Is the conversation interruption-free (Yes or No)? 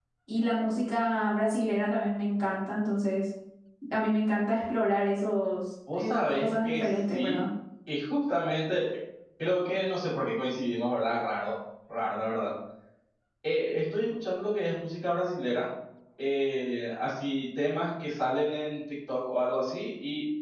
No